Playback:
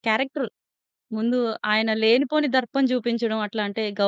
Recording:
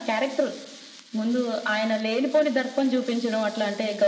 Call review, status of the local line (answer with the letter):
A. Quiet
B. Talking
A